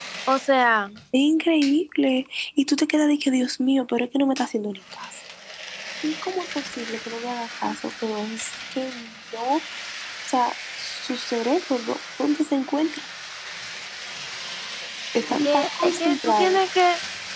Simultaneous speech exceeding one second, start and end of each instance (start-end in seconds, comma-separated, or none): 15.3-16.6